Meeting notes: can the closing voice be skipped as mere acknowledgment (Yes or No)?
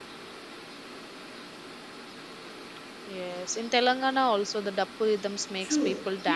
No